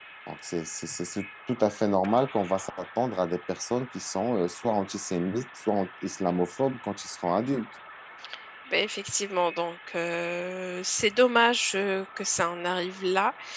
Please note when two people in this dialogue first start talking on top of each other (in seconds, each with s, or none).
none